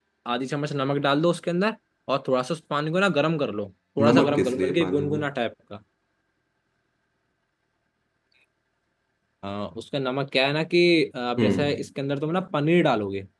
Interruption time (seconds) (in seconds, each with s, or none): 4.0 s